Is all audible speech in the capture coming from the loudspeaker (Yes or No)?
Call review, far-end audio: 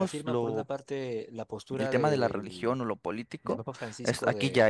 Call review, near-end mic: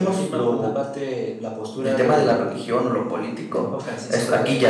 Yes